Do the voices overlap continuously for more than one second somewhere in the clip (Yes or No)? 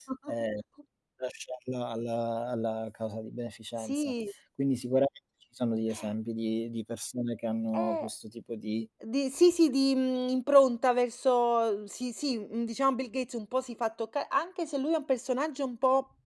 No